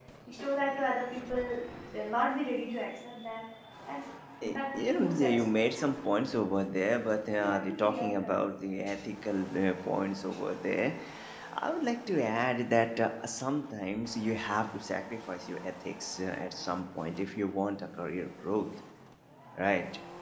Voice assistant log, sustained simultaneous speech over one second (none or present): present